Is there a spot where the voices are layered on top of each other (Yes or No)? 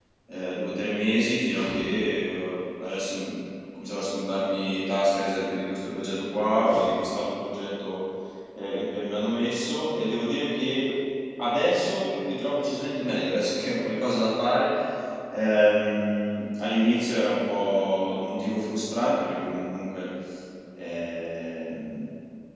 No